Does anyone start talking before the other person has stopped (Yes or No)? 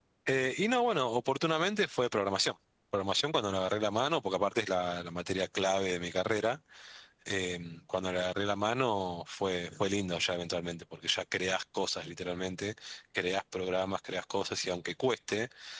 No